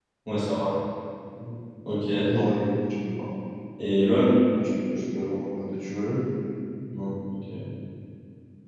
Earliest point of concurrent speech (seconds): none

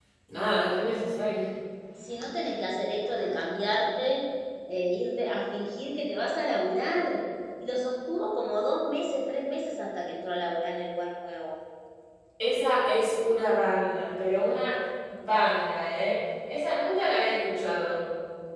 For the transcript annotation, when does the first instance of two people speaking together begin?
none

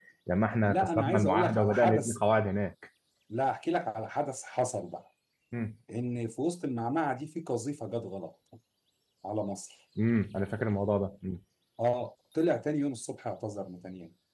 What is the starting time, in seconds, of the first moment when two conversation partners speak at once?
0.6 s

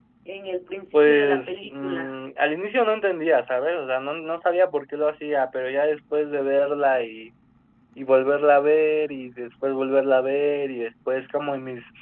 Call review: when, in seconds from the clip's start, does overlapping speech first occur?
0.9 s

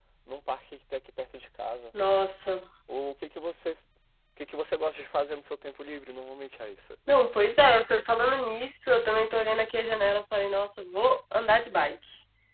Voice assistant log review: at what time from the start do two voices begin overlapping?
none

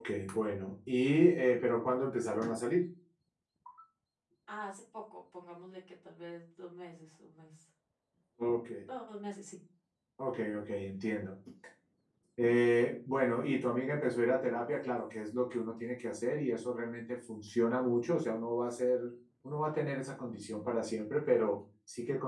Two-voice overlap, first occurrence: none

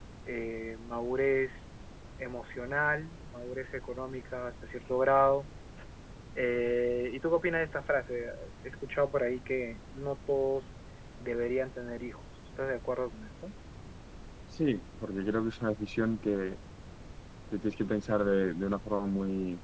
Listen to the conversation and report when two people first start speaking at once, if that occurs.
none

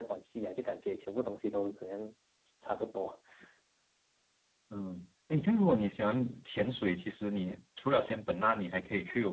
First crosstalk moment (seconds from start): none

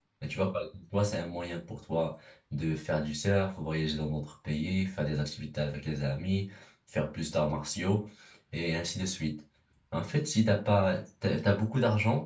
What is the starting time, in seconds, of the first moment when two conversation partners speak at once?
none

